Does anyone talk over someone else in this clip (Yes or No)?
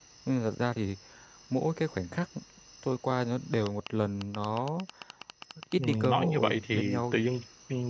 Yes